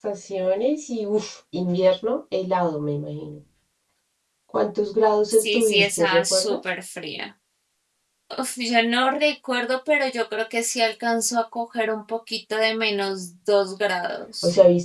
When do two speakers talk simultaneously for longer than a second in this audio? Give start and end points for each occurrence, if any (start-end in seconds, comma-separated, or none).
5.3-6.6